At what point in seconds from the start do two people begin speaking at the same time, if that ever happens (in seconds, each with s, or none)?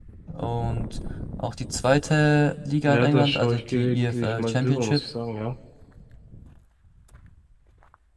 2.8 s